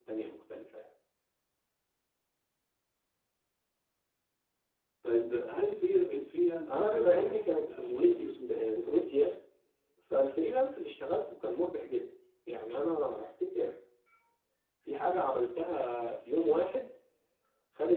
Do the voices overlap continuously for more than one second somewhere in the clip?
Yes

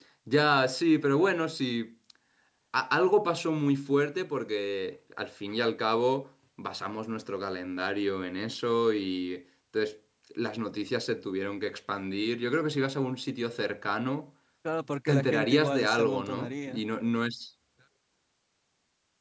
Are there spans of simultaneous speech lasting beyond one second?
Yes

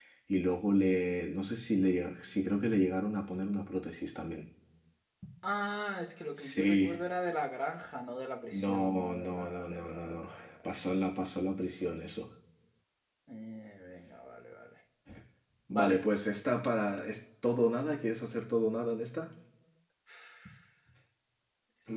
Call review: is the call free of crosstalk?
No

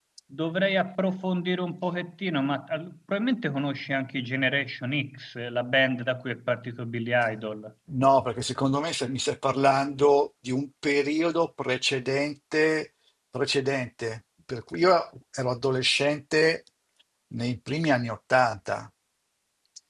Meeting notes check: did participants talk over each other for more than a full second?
No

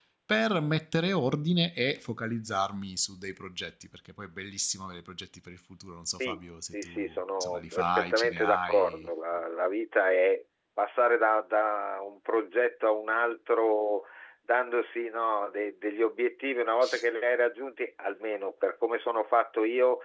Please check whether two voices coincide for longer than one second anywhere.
Yes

